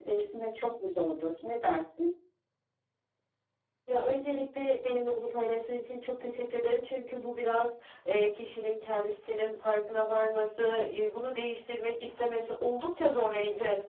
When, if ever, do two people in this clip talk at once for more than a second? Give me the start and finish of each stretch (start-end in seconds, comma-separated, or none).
none